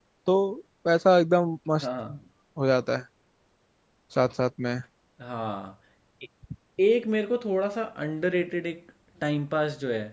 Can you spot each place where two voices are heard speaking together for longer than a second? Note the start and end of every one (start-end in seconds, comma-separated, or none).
none